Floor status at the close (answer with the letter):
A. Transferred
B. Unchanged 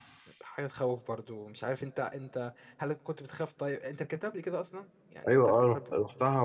A